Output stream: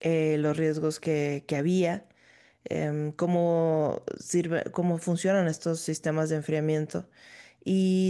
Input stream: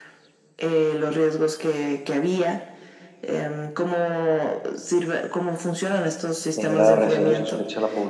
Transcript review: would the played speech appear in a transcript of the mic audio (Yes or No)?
Yes